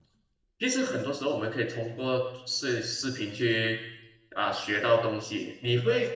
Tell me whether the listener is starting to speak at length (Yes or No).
No